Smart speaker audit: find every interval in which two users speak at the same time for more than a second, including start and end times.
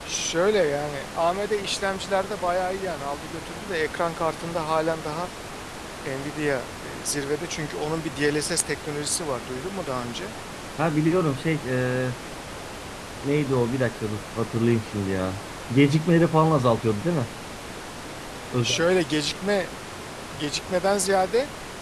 none

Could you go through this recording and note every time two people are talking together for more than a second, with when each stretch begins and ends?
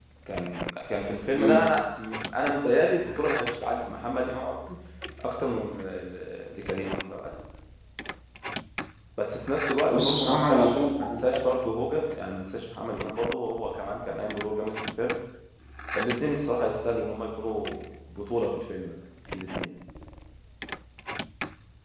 9.9-11.1

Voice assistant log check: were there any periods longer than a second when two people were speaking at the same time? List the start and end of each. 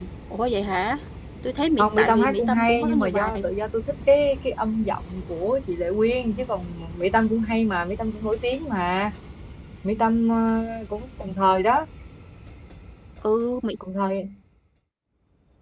1.8-3.4

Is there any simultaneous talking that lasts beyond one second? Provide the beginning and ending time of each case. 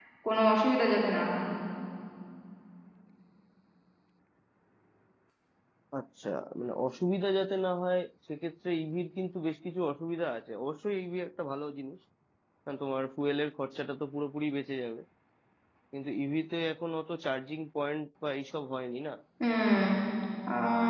none

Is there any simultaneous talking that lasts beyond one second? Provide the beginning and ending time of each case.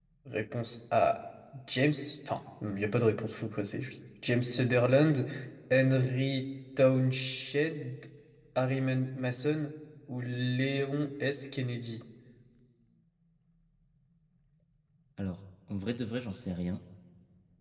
none

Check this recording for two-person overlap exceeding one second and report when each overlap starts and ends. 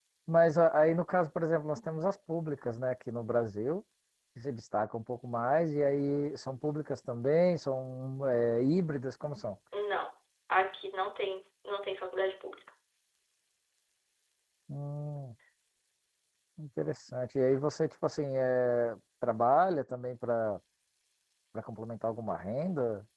none

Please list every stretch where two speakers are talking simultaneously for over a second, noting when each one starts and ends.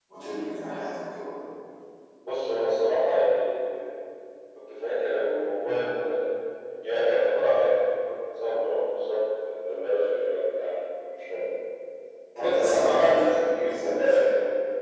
12.4-14.1

